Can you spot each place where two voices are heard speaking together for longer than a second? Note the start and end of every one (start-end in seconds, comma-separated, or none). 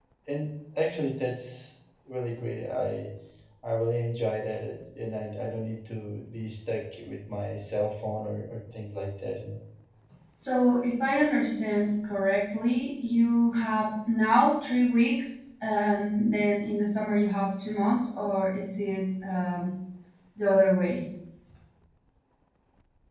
none